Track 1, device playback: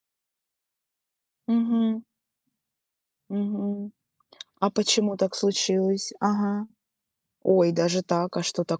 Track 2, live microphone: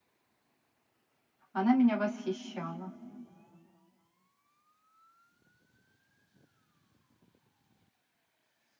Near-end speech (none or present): present